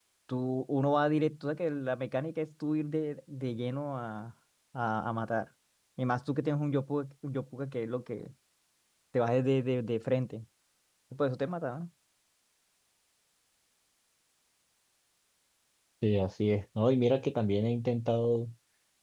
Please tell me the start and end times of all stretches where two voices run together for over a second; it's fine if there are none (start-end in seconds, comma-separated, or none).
none